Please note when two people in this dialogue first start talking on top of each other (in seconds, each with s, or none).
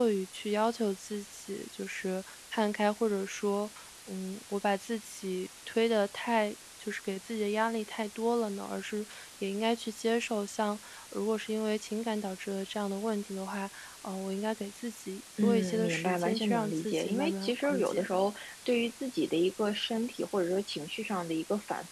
15.4 s